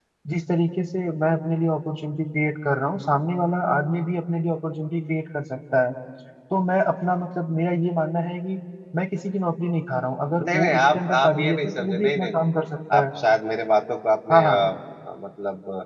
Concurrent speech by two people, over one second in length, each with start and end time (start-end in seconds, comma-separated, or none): 10.4-12.5